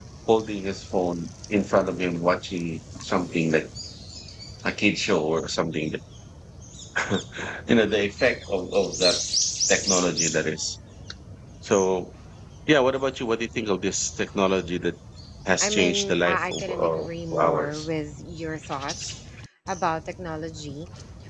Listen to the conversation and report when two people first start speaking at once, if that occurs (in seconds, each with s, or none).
15.6 s